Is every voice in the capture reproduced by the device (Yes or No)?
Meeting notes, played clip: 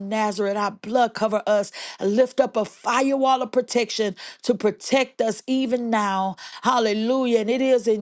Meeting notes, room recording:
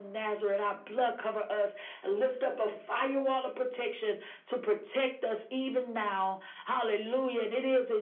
Yes